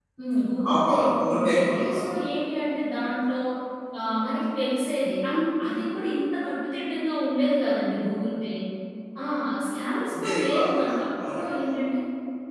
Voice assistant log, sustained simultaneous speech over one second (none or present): present